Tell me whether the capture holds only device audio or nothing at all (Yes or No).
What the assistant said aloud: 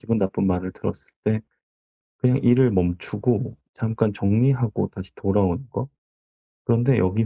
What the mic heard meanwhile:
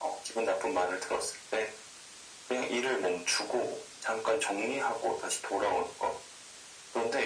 Yes